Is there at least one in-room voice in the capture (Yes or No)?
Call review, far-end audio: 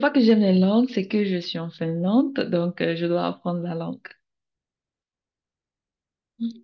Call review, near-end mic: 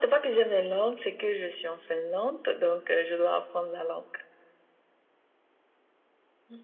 No